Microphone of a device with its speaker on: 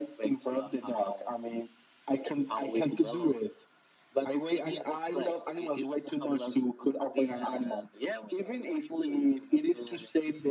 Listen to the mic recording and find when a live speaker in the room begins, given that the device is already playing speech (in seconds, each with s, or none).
none